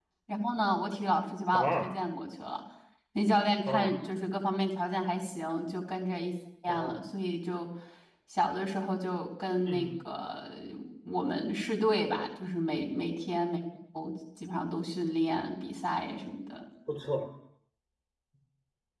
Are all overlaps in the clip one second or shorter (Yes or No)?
Yes